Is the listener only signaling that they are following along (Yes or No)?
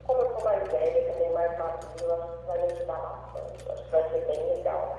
No